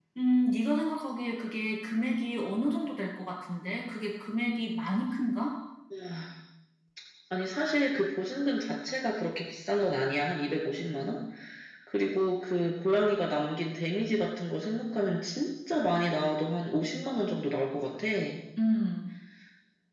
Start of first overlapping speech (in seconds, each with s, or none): none